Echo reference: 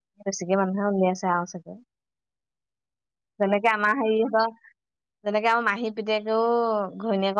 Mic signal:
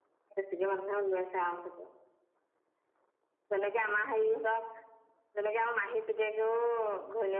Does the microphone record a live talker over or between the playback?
No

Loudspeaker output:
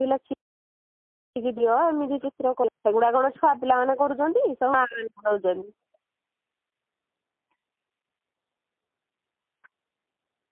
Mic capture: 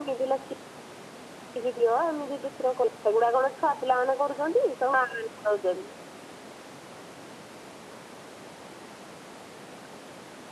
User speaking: No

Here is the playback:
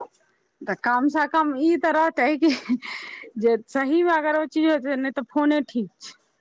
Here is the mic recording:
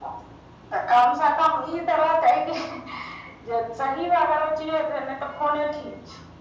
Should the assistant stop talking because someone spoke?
No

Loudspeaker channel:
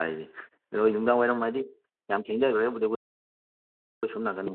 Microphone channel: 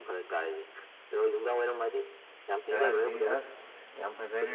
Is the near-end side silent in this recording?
No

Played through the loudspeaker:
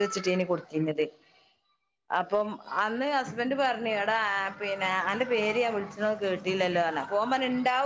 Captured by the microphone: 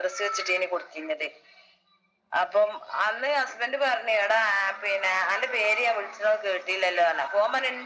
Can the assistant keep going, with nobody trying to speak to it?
Yes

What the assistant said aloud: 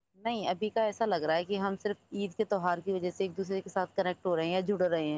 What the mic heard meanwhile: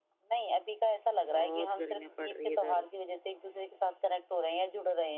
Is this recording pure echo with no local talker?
No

